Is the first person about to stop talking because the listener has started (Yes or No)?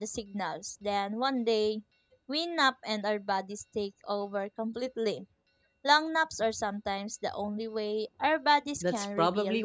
Yes